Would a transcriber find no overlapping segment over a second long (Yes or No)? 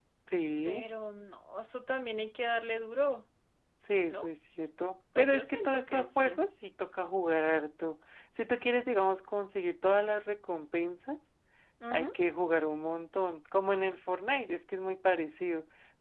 No